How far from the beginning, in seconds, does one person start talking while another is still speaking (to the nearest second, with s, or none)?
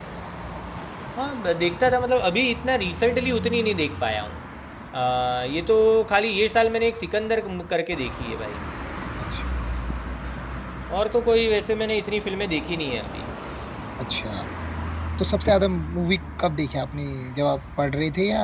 none